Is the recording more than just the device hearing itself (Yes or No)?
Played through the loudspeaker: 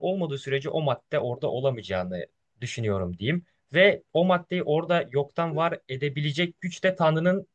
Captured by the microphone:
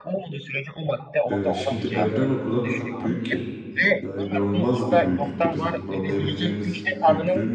Yes